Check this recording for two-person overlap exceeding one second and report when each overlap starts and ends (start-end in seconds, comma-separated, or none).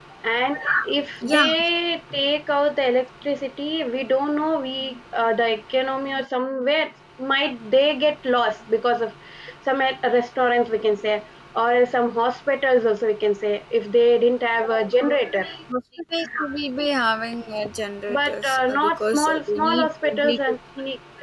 18.1-20.4